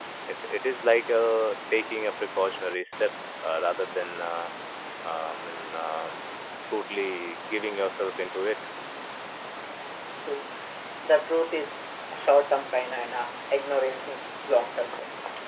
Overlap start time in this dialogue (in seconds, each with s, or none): none